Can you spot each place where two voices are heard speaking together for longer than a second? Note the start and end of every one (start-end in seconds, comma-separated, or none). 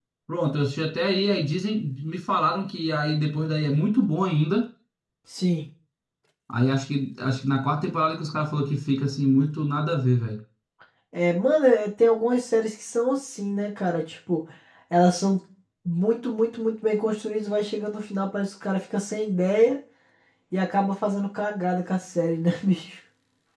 none